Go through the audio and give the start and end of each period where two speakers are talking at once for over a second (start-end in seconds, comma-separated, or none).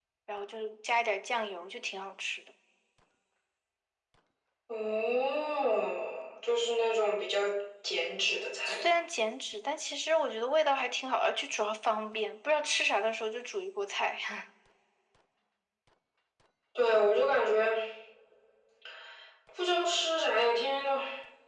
none